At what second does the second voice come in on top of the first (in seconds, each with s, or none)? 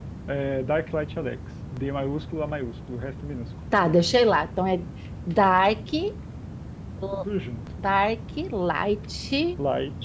none